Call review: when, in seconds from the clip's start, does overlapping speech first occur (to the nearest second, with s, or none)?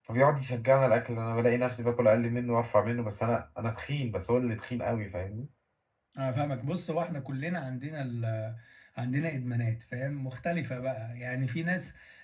none